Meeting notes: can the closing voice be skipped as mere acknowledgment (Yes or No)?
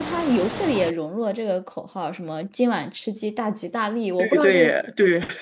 No